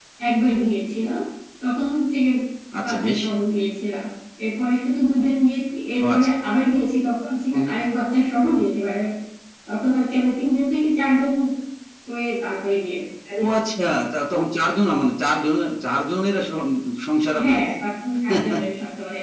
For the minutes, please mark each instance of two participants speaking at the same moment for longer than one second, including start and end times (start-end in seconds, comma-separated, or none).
none